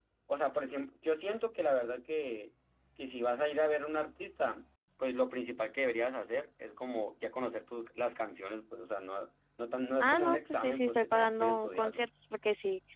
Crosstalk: present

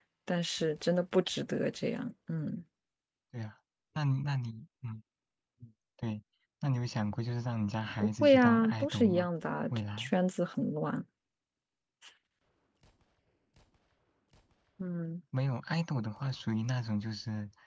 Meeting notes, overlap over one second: present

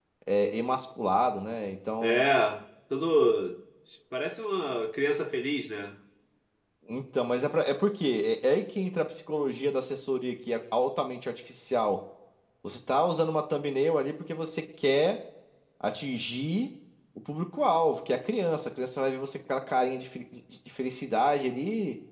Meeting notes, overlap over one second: none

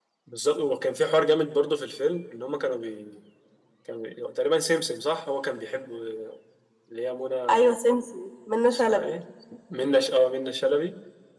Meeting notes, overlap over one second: none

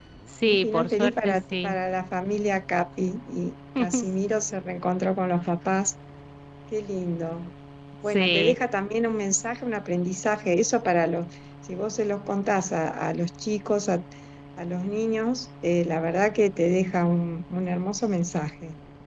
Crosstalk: present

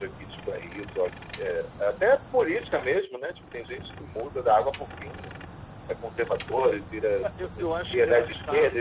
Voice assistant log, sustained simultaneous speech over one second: present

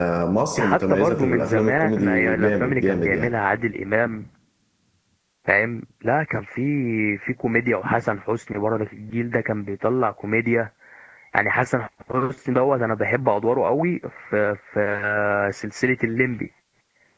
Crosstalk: present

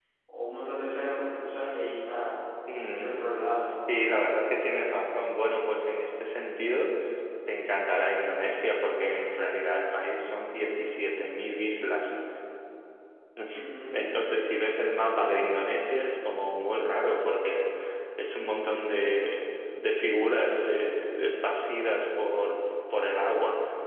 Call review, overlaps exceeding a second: none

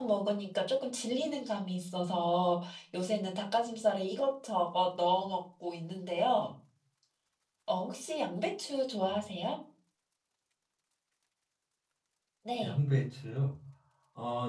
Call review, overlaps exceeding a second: none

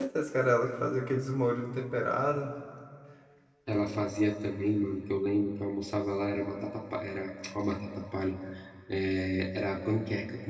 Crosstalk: none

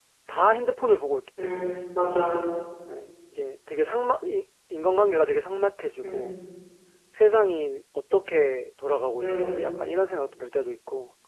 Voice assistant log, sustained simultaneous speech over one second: none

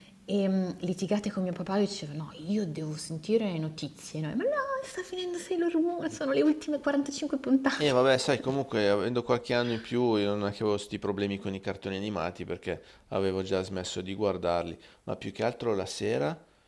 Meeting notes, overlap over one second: none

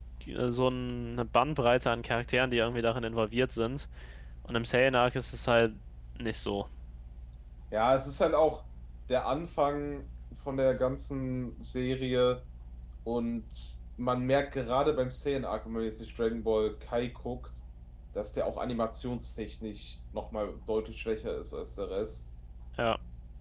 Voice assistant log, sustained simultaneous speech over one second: none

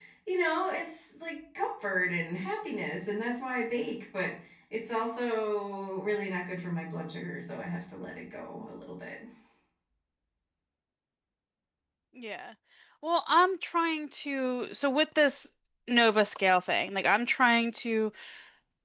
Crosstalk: none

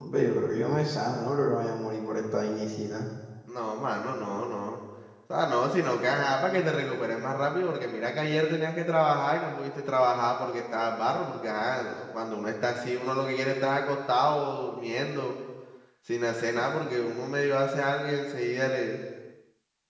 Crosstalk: none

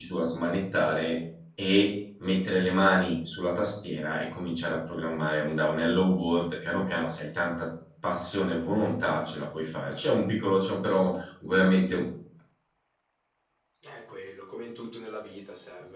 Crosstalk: none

